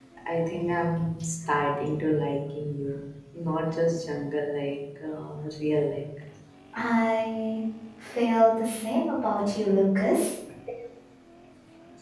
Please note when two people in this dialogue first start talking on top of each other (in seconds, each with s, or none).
none